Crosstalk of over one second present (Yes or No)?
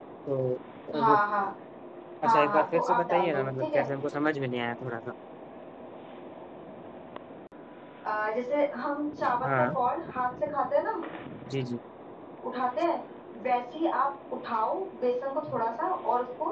Yes